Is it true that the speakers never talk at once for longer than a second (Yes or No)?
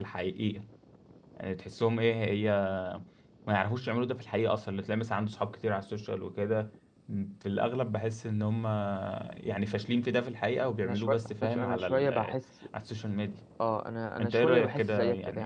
No